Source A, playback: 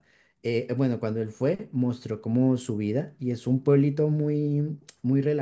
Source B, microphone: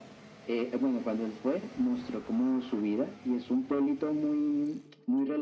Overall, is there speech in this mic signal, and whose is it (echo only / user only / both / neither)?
echo only